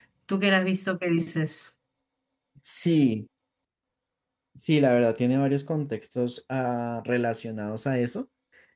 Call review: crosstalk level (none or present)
none